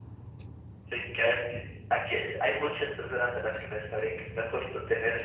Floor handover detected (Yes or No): Yes